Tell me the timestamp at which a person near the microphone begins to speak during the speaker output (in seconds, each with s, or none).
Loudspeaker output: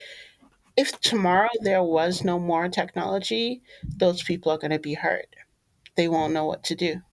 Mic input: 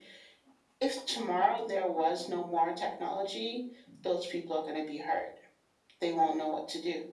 none